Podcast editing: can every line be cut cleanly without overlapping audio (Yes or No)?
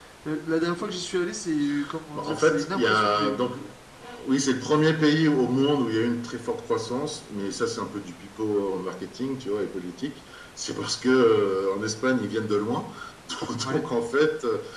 No